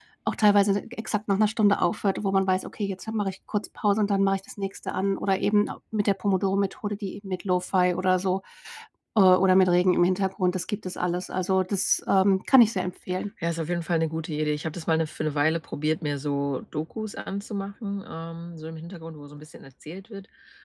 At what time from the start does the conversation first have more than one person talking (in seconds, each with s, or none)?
none